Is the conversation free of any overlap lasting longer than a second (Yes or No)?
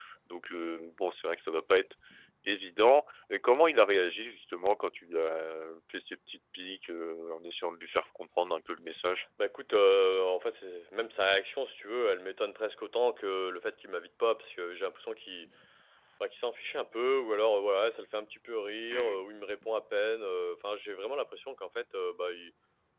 Yes